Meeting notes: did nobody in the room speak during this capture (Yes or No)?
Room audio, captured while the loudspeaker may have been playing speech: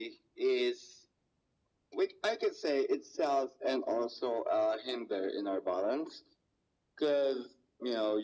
Yes